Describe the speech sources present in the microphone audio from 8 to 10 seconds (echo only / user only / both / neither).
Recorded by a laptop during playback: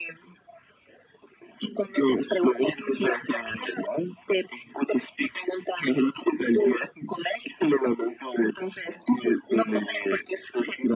echo only